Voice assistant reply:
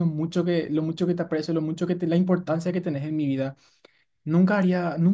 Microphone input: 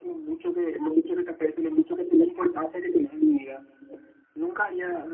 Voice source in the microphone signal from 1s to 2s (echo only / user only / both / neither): echo only